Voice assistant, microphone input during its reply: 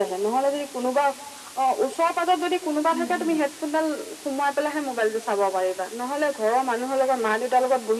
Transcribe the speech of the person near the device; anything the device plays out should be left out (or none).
উম উম